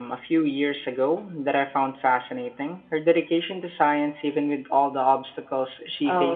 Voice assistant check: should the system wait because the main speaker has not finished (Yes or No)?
No